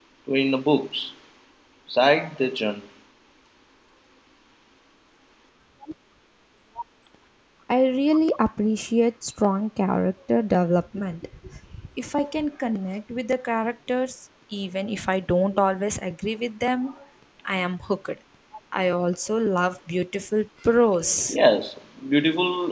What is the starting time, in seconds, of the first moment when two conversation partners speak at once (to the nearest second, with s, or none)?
none